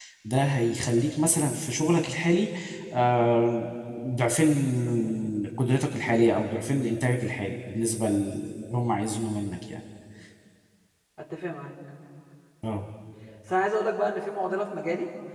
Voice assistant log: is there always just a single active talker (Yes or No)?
Yes